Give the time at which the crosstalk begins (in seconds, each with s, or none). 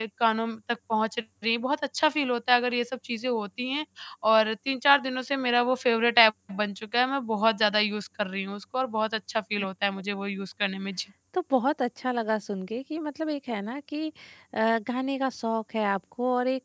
none